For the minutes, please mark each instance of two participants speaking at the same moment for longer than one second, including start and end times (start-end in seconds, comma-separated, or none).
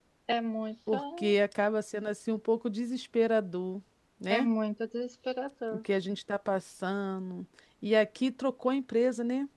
none